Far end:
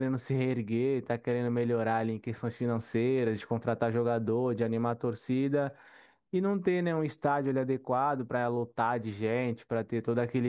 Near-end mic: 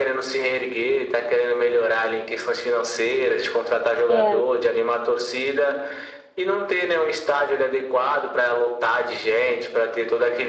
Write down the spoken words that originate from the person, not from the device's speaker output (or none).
é,